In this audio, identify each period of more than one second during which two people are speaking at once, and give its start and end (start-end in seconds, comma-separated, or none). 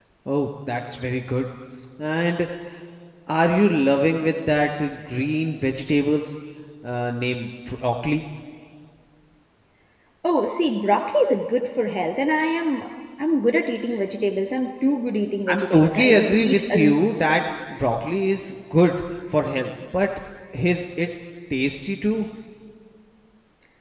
15.5-17.0